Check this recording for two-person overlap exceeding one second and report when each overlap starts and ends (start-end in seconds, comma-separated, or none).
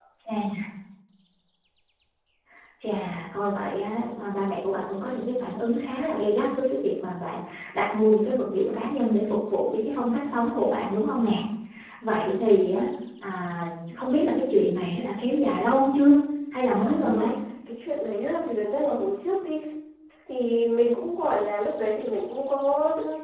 none